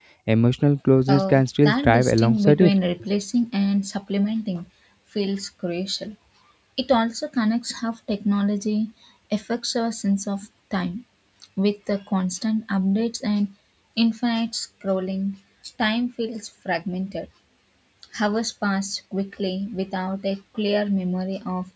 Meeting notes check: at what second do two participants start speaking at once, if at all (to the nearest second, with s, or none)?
1 s